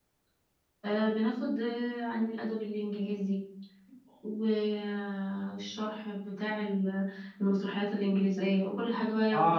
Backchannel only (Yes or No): No